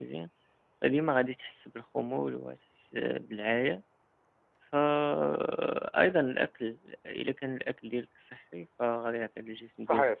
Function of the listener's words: listening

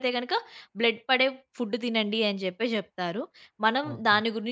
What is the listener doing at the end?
listening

